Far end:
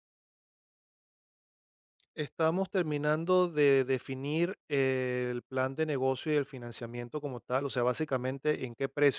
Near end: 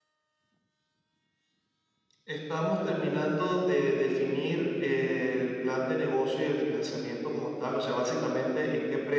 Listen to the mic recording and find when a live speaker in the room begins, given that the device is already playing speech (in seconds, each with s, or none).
none